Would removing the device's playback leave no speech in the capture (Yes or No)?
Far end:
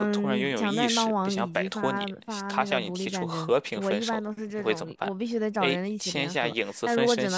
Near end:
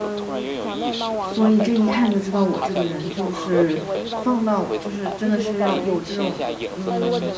No